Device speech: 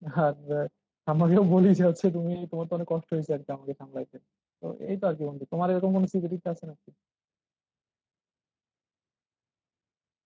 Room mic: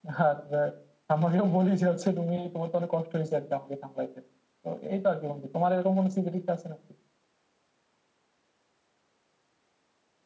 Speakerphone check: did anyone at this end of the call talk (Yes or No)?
No